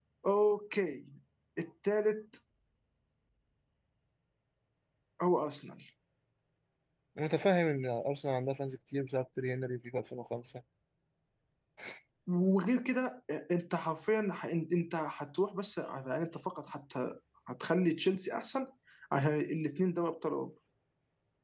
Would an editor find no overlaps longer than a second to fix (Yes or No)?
Yes